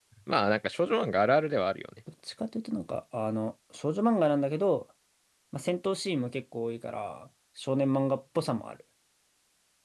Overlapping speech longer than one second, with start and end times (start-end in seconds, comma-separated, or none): none